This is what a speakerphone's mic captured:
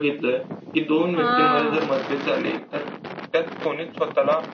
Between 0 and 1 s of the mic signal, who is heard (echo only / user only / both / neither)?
echo only